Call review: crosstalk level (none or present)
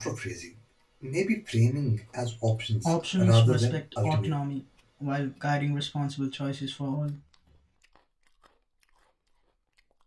present